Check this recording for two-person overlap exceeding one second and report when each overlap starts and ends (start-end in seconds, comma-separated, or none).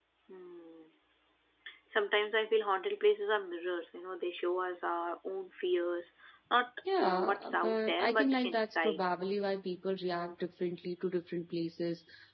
7.0-9.0